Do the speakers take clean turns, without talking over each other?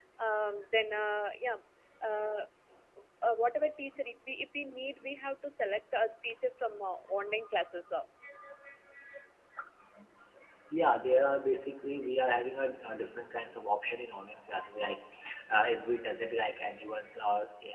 Yes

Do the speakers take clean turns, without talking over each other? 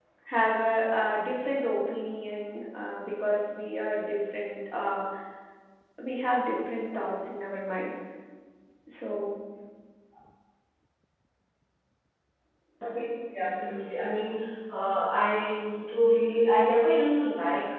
Yes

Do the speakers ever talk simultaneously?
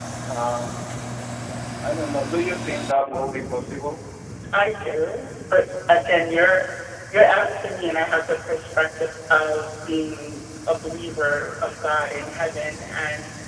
No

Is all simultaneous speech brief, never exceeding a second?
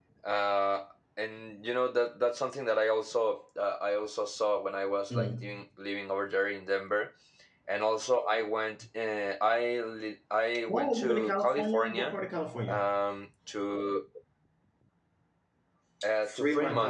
No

